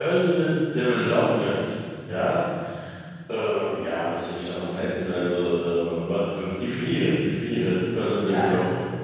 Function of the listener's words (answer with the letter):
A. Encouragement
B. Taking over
B